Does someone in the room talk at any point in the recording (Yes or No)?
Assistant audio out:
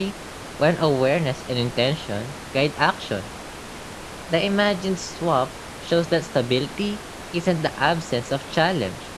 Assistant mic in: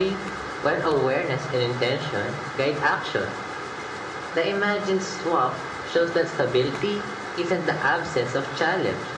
No